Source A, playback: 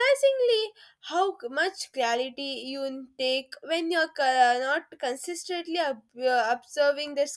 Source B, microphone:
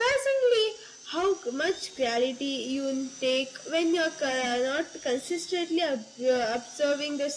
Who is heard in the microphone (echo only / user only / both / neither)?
echo only